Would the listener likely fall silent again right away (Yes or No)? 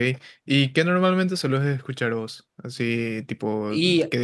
Yes